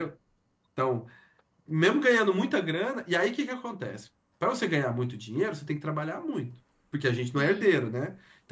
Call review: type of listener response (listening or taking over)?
listening